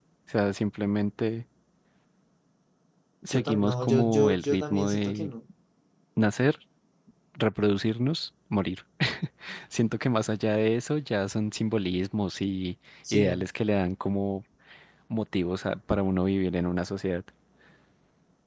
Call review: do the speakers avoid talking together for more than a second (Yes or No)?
No